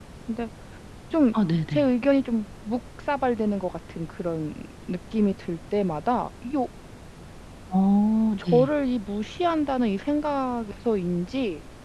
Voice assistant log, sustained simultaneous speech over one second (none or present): none